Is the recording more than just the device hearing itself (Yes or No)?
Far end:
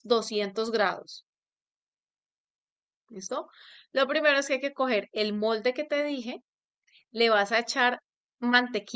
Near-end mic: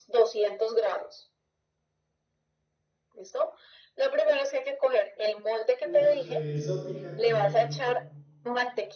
Yes